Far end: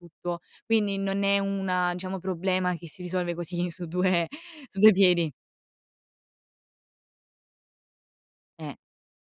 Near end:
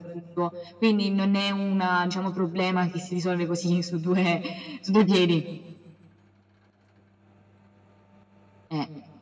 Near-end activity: none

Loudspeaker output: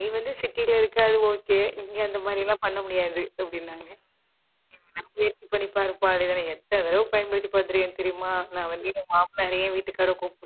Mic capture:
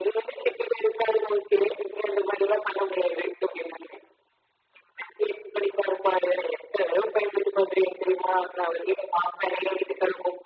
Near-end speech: none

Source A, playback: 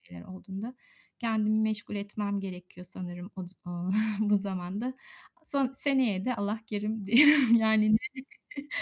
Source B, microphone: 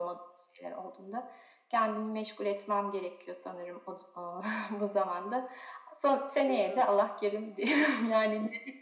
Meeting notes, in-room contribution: present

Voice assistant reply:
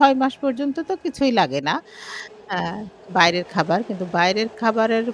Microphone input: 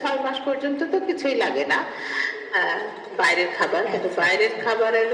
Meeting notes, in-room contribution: present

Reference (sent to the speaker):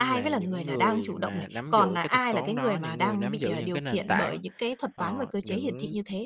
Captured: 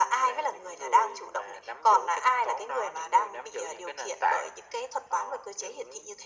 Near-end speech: none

